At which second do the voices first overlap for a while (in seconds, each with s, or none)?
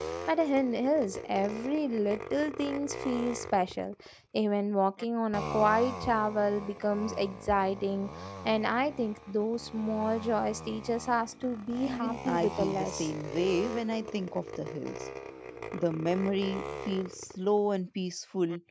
11.9 s